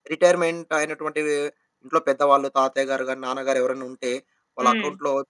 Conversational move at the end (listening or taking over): listening